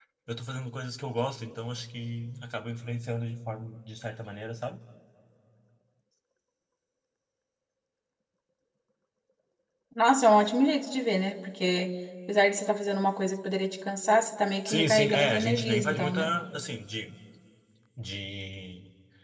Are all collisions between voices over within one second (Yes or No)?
No